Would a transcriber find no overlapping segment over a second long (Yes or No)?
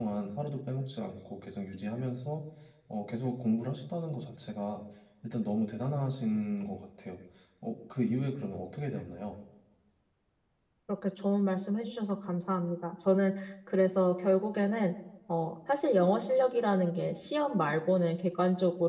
Yes